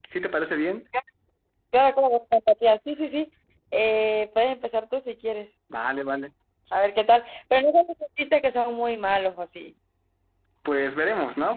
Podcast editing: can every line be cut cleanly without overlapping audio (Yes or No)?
Yes